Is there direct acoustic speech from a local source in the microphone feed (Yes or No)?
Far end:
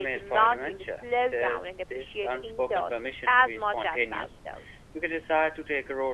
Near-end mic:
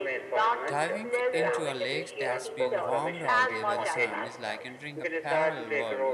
Yes